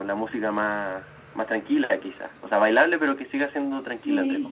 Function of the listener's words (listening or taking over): taking over